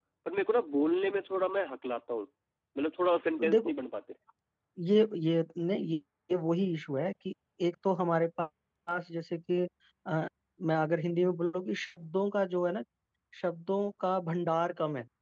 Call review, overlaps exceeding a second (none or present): none